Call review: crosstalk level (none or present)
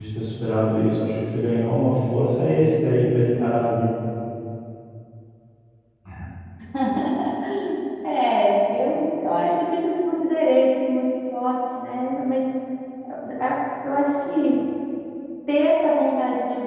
none